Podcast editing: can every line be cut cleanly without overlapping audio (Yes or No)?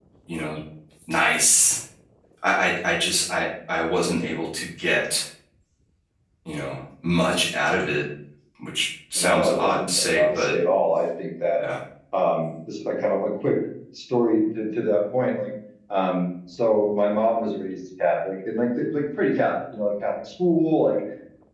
No